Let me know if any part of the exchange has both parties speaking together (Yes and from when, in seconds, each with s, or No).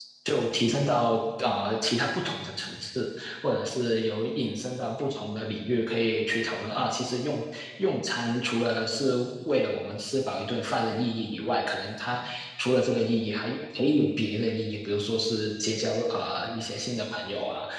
No